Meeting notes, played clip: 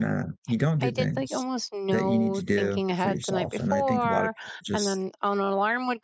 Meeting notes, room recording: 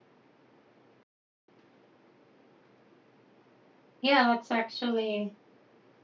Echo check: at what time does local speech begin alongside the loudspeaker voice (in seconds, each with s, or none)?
4.0 s